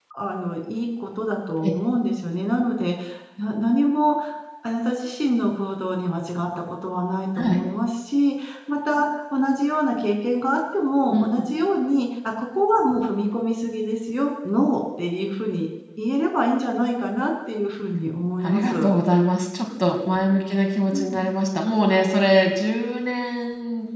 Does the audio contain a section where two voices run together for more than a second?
No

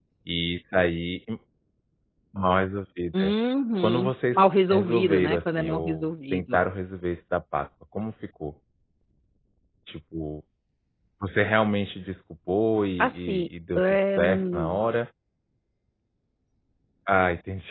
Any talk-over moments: Yes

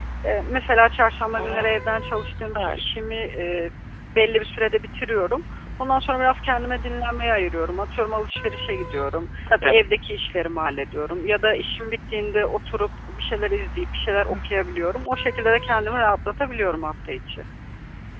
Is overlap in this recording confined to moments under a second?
Yes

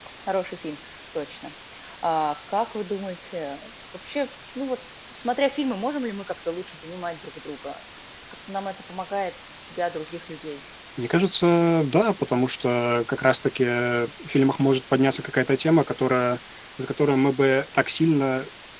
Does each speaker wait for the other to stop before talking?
Yes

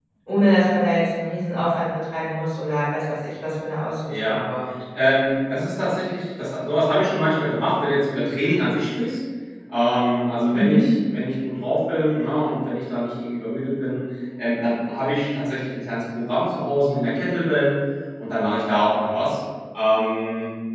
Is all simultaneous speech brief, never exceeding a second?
Yes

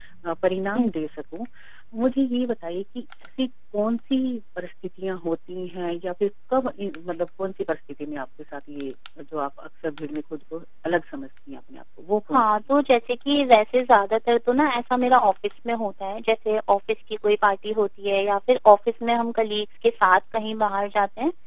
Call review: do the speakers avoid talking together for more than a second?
Yes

